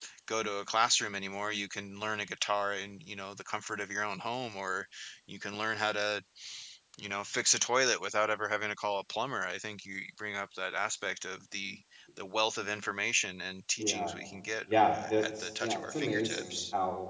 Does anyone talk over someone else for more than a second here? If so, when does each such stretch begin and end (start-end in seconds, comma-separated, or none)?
14.7-16.6